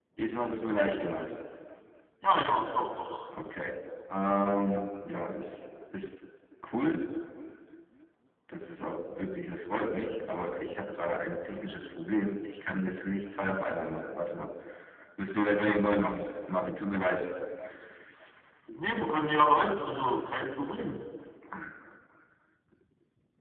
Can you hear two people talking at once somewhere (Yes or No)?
No